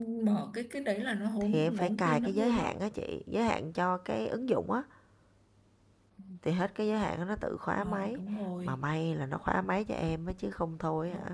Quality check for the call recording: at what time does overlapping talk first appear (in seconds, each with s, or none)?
1.4 s